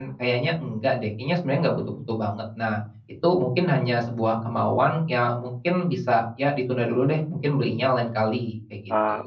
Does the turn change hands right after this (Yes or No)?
Yes